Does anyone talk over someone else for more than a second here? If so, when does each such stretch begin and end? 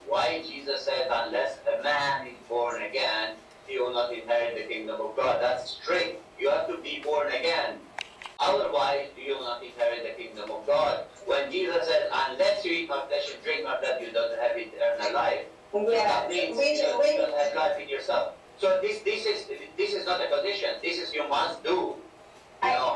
15.9-17.2

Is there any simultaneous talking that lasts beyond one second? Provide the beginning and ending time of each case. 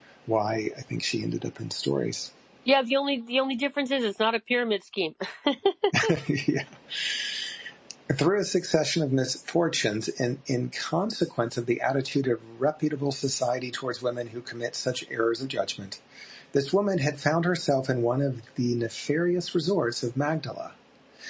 none

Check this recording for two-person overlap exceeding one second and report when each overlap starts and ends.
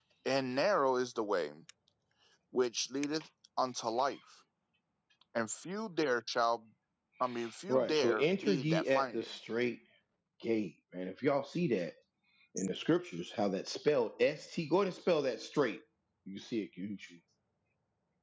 7.7-9.3

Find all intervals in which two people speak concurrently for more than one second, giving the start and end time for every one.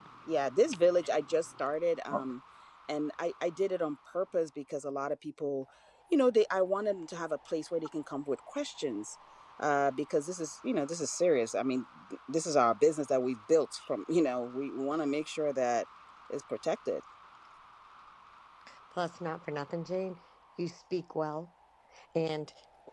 none

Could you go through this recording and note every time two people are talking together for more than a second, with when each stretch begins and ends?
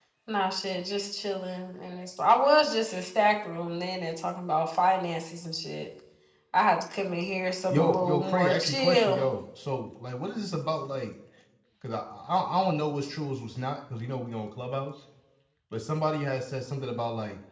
7.7-9.2

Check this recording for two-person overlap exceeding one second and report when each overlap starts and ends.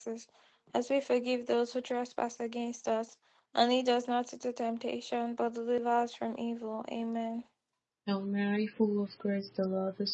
none

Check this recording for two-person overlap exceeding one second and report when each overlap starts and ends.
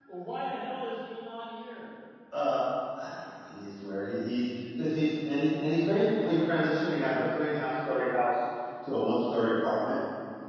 none

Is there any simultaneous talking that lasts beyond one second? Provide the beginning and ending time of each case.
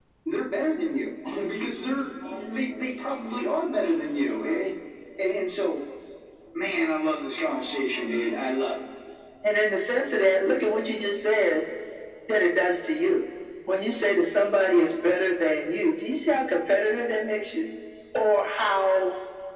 none

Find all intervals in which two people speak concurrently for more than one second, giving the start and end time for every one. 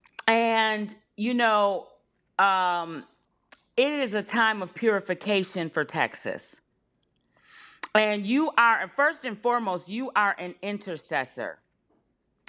none

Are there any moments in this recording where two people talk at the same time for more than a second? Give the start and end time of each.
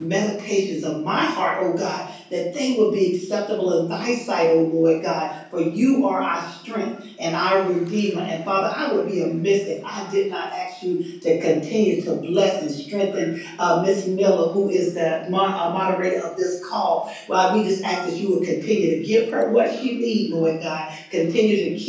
none

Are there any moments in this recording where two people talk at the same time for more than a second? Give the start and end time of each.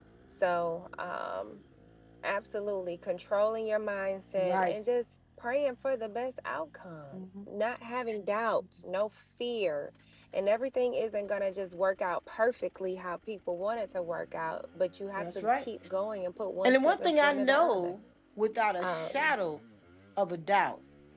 16.6-17.9

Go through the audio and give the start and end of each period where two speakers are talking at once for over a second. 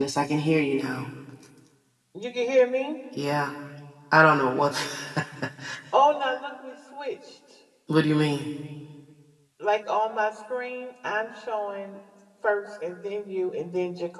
none

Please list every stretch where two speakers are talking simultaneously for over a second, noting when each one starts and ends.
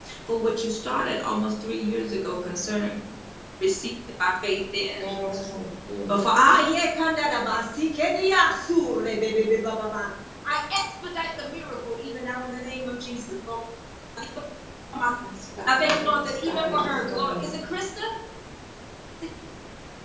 15.7-17.5

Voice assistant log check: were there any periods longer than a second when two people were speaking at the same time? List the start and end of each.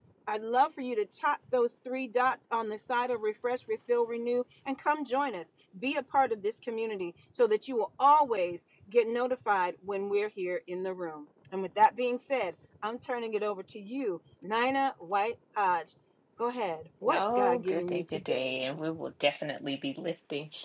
17.0-18.5

